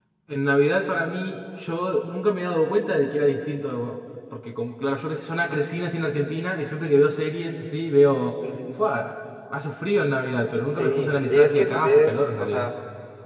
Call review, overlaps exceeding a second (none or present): present